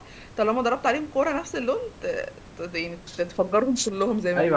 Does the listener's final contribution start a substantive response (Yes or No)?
Yes